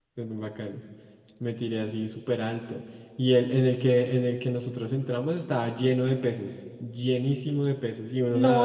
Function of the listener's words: taking over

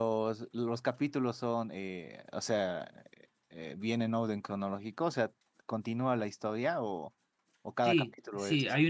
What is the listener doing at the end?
taking over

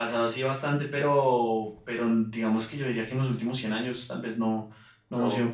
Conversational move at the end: listening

